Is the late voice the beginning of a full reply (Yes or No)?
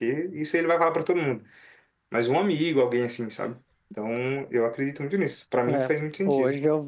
Yes